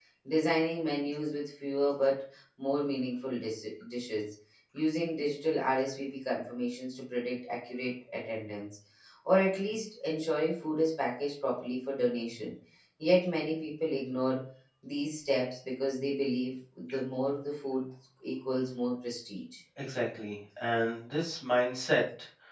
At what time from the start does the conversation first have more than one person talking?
none

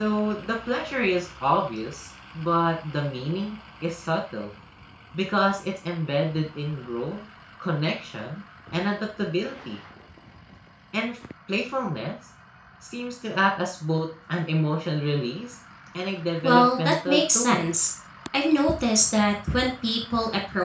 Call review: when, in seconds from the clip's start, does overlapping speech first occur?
16.4 s

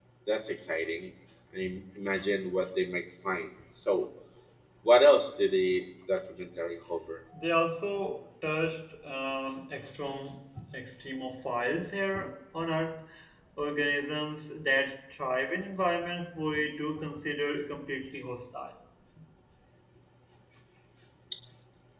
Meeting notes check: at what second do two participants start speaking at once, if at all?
none

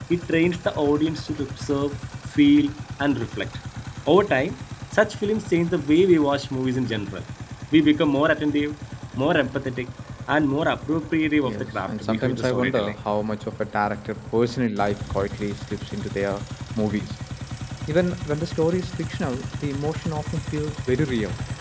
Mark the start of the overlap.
11.4 s

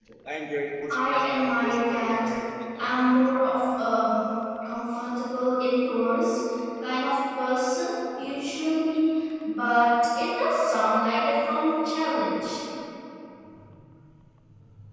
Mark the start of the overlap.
0.9 s

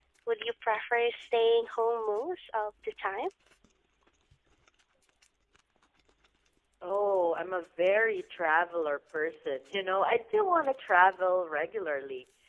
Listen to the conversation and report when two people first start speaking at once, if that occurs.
none

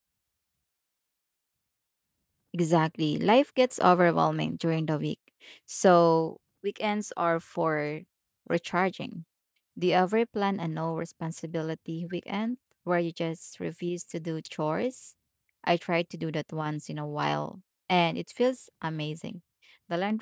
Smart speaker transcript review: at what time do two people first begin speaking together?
none

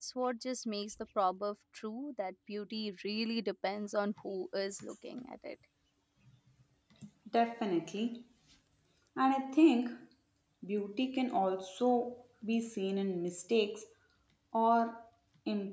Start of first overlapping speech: none

